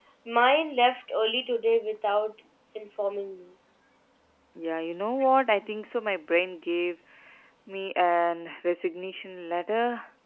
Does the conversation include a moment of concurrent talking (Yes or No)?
No